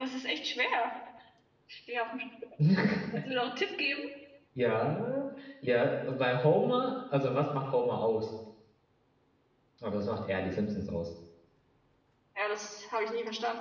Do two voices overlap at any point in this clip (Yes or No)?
No